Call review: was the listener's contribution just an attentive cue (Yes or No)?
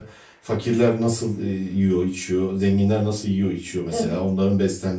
Yes